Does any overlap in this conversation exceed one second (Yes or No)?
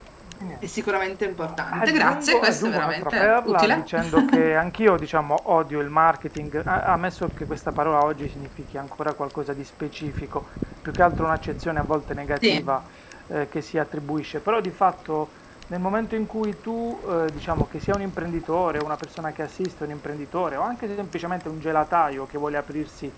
Yes